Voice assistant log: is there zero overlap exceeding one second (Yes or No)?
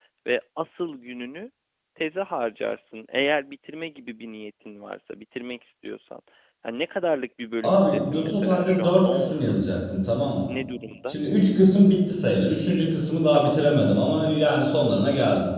No